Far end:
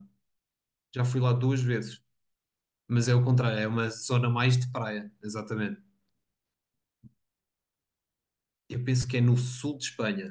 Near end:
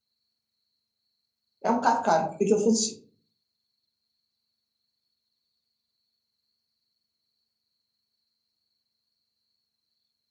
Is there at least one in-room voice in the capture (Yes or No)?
Yes